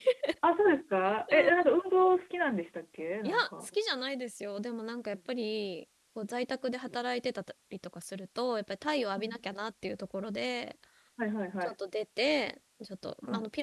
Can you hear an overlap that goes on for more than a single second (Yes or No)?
No